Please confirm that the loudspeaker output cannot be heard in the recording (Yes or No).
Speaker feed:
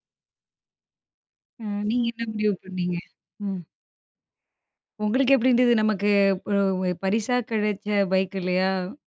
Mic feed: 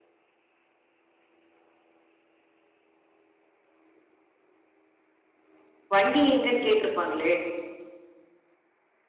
Yes